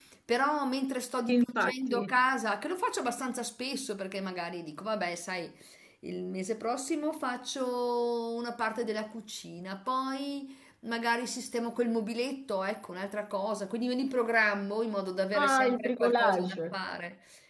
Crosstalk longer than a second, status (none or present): present